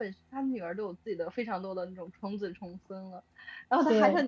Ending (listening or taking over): listening